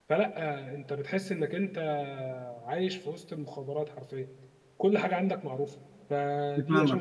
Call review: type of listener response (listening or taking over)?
taking over